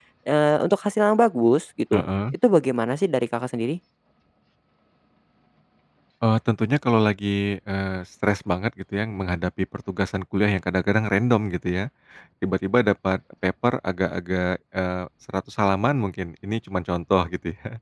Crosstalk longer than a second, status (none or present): none